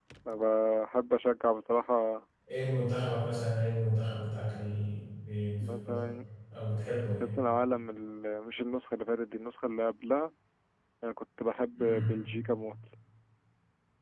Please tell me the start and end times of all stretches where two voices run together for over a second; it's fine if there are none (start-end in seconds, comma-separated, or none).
none